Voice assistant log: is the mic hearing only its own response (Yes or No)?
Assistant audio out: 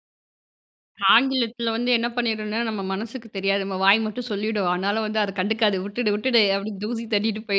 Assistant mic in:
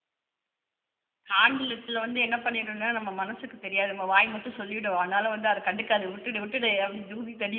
Yes